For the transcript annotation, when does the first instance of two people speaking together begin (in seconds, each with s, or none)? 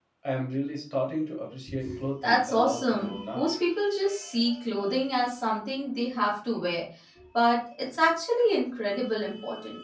2.2 s